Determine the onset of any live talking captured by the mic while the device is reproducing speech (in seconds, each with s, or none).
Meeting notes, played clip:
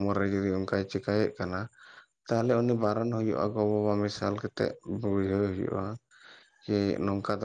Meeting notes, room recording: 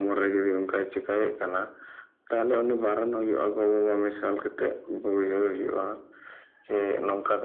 none